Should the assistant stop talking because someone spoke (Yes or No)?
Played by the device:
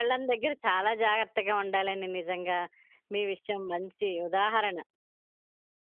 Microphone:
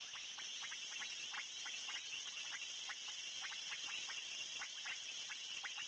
No